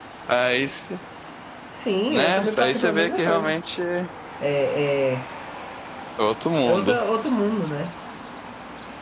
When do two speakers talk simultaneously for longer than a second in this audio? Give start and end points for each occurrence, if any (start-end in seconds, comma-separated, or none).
2.1-3.6